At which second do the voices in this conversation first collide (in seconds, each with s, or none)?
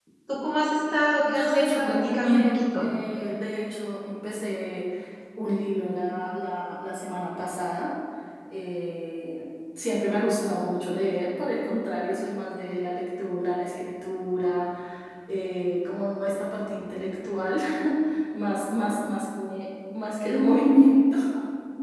1.2 s